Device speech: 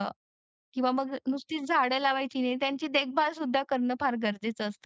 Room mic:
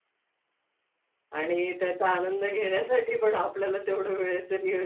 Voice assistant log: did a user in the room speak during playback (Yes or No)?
Yes